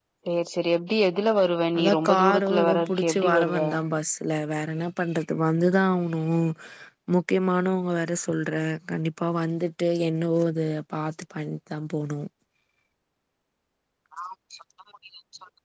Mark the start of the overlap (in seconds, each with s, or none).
1.8 s